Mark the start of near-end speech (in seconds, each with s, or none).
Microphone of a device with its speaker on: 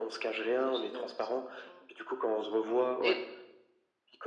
none